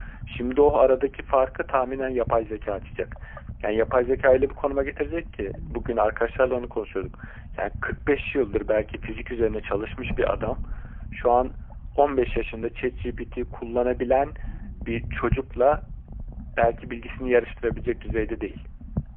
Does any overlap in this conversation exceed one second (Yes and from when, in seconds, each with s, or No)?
No